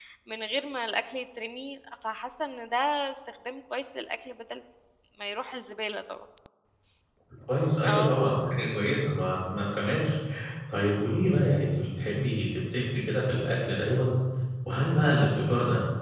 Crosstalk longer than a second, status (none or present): none